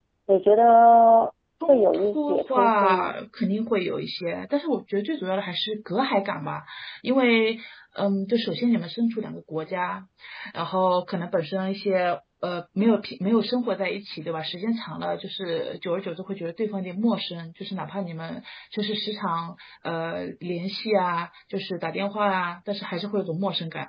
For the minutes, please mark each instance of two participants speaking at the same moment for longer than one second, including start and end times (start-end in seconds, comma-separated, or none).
1.7-3.1